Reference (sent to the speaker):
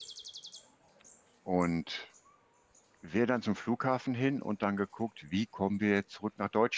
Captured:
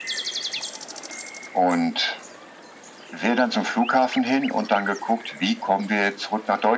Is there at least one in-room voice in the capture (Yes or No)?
No